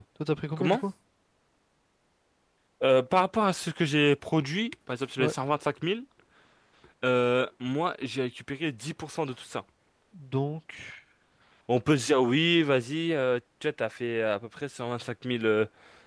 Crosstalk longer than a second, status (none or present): none